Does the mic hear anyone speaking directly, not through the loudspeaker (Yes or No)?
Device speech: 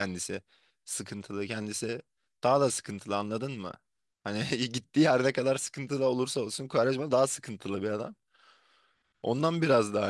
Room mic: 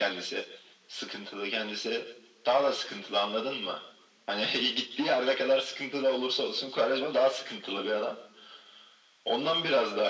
No